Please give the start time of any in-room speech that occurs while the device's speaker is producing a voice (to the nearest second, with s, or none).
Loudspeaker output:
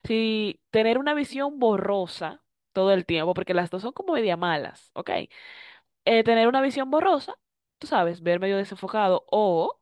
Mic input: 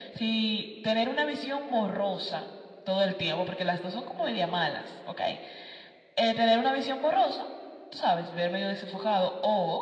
none